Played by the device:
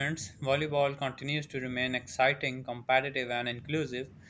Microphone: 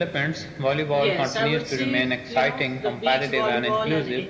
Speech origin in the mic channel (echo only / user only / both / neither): both